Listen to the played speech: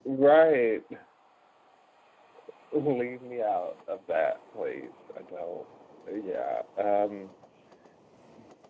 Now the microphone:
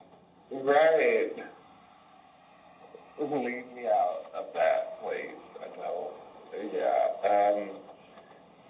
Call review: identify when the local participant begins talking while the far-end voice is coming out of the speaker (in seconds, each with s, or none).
none